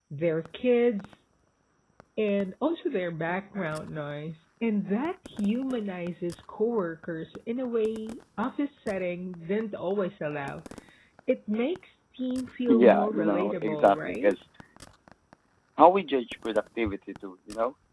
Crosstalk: present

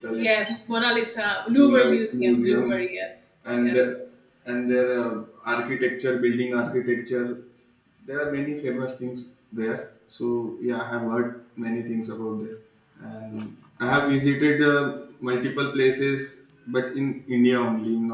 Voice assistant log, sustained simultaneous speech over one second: present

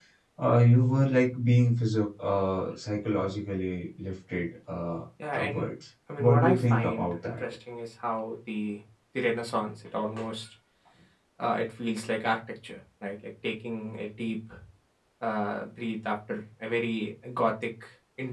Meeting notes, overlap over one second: present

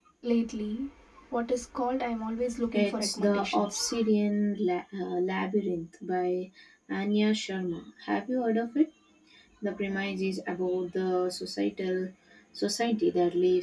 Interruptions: present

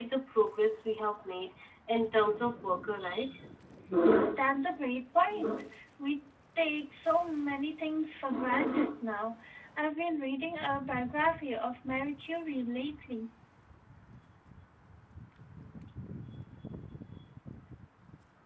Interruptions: none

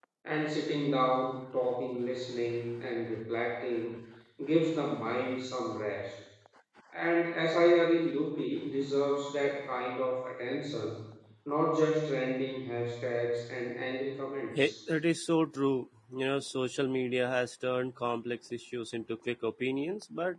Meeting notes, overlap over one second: none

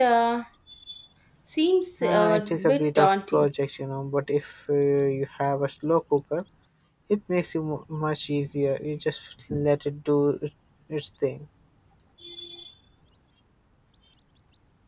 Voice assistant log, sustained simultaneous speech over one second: present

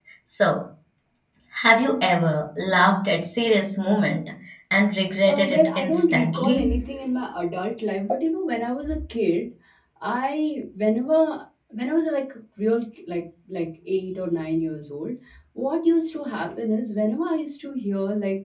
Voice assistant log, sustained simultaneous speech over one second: present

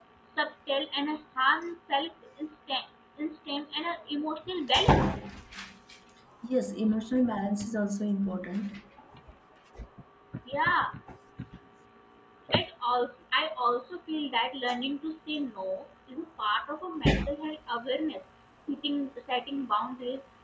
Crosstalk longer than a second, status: none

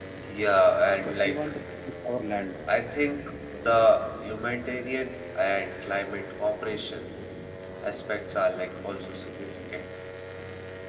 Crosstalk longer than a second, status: none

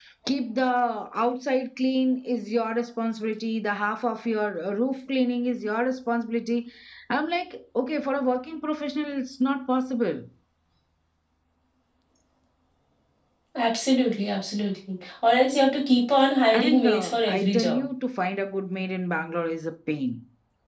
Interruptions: present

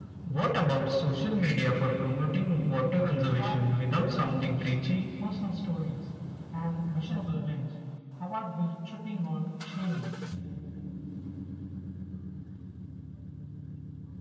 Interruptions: present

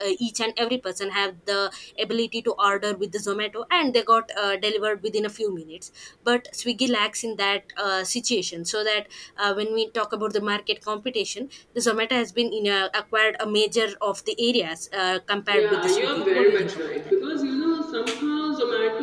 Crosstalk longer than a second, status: present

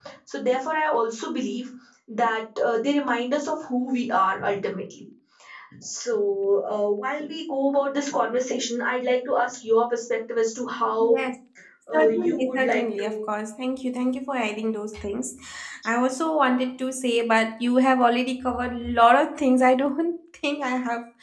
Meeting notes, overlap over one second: present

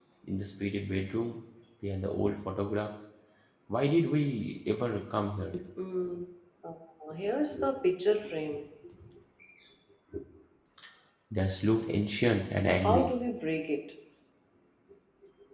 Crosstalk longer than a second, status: none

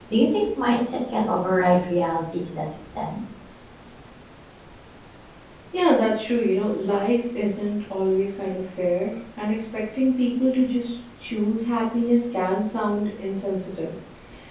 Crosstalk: none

